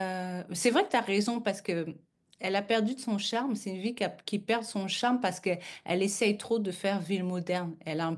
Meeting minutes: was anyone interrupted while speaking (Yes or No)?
No